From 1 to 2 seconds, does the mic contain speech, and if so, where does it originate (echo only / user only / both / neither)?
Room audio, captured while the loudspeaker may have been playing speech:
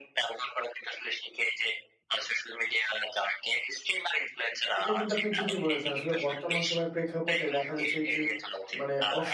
echo only